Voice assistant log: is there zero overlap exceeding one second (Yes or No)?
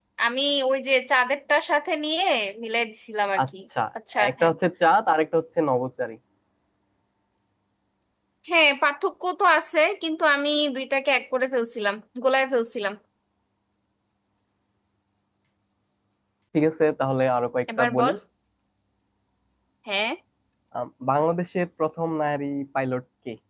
Yes